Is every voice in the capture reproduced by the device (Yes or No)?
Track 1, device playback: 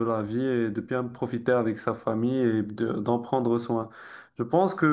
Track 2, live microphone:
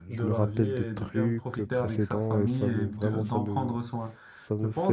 No